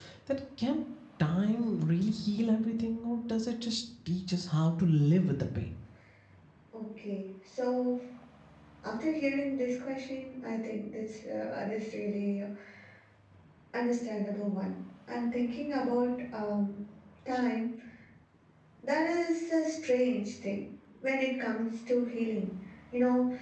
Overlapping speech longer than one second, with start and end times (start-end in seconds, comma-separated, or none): none